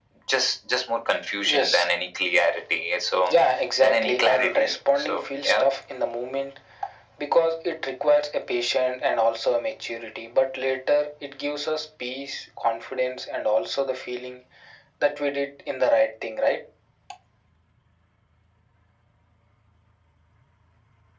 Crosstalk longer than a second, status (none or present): present